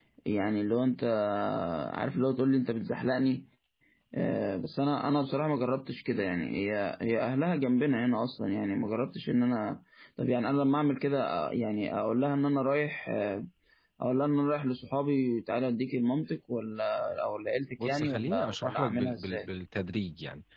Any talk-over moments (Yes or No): Yes